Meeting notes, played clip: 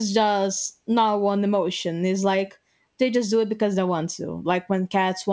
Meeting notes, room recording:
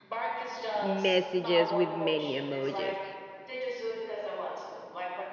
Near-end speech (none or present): present